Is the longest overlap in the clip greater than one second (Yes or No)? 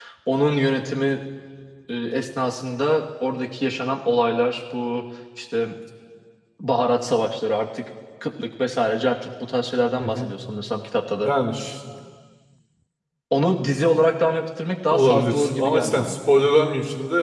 Yes